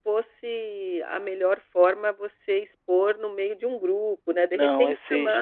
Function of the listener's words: taking over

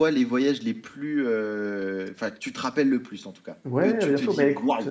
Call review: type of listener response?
taking over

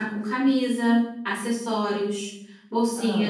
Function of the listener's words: listening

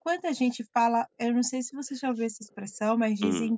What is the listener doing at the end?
listening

